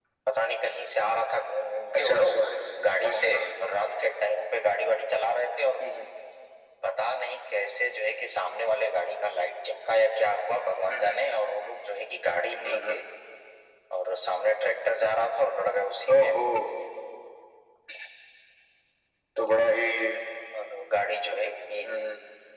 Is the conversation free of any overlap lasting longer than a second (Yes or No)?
Yes